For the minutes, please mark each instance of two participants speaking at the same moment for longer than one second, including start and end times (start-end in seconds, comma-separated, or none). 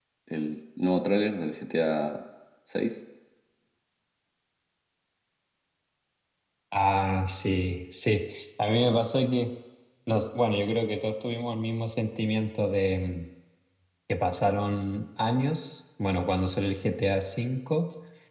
none